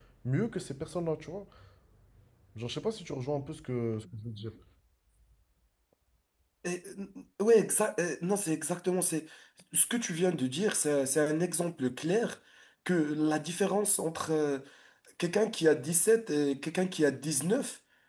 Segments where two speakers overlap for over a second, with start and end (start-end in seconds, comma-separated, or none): none